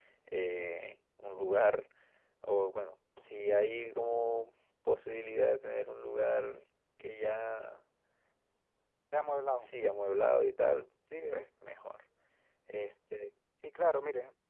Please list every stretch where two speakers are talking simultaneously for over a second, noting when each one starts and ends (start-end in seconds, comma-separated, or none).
none